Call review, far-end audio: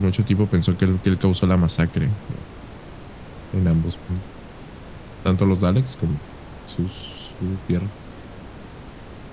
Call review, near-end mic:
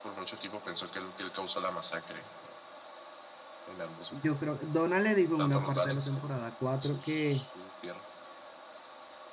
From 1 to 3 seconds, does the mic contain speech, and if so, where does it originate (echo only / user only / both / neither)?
echo only